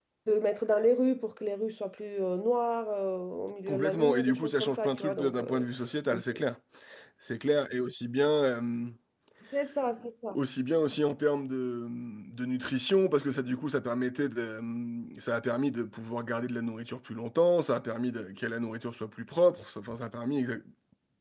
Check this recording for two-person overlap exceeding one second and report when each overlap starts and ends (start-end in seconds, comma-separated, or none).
3.7-5.7